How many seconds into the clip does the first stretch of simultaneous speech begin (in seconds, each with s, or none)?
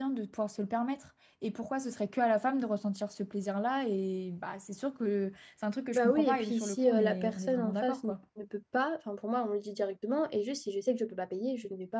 5.9 s